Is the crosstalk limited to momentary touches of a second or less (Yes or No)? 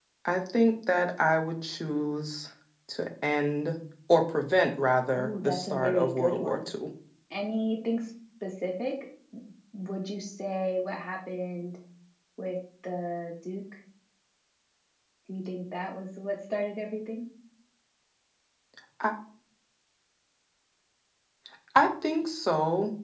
No